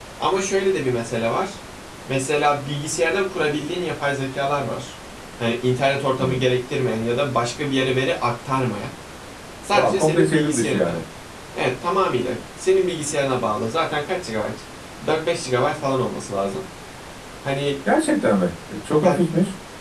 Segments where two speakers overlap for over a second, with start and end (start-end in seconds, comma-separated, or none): 9.7-11.0